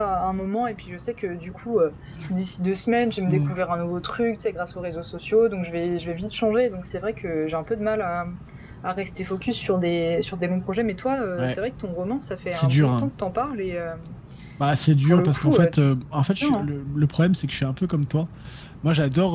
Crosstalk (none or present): present